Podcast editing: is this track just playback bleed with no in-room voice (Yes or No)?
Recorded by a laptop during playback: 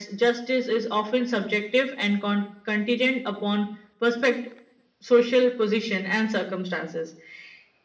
Yes